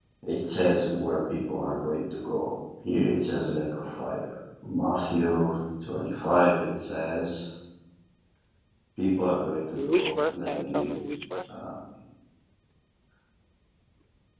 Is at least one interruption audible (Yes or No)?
Yes